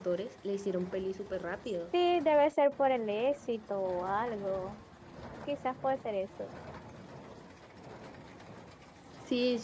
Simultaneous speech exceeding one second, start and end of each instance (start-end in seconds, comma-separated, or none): none